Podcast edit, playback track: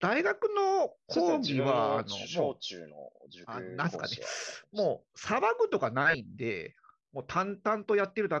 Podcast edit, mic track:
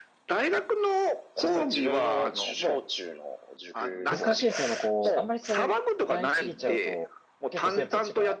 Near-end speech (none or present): present